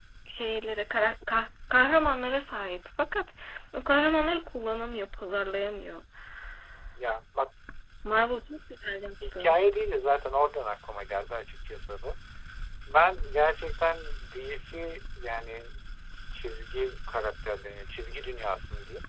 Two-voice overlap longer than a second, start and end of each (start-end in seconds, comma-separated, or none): none